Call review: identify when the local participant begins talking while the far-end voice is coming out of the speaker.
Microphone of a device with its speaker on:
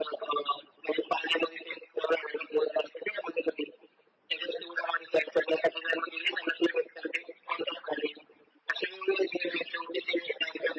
none

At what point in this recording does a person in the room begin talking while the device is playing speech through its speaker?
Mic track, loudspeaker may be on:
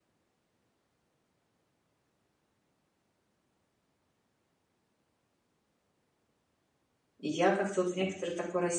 7 s

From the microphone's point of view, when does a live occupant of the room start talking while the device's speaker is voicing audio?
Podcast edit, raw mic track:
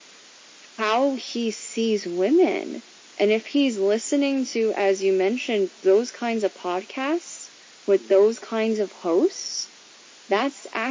none

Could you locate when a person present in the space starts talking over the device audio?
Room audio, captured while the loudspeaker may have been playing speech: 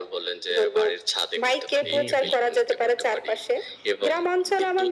2 s

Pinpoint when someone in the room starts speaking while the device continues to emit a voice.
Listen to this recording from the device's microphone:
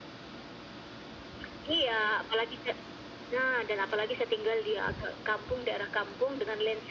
none

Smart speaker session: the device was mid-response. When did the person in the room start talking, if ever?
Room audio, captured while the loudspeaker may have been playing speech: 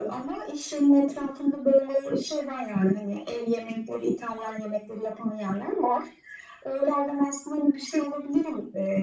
none

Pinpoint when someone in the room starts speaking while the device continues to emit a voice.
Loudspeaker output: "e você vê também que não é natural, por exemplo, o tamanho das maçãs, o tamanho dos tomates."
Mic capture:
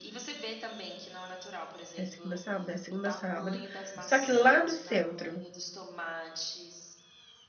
2 s

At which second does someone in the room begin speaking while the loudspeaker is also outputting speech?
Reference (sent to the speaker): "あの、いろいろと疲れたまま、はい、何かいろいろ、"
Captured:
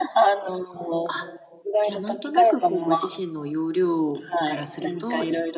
1 s

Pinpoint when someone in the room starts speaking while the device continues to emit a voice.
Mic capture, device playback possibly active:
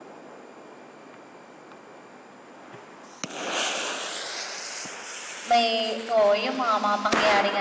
5 s

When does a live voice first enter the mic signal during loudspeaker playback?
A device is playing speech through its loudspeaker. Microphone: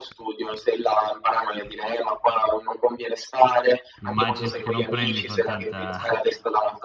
4 s

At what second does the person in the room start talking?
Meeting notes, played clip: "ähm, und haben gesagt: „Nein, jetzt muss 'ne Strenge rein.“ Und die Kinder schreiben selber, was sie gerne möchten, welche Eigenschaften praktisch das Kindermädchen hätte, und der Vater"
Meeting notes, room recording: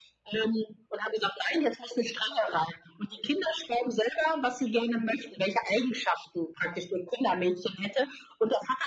none

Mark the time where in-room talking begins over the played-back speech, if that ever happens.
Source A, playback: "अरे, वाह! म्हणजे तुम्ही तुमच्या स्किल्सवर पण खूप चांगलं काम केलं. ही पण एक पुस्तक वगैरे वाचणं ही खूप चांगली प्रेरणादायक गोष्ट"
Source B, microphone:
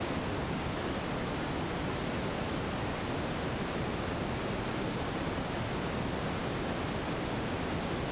none

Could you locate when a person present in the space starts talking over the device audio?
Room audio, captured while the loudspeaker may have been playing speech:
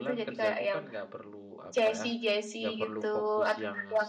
none

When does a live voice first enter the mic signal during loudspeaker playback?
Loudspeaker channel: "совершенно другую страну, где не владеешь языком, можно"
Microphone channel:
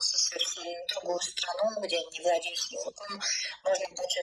none

